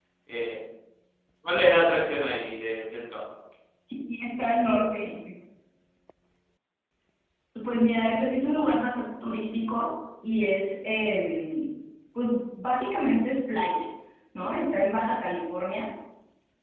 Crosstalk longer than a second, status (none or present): none